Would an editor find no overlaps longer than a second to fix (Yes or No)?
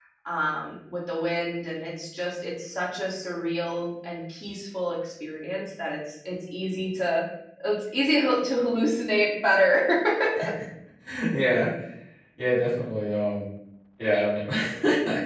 Yes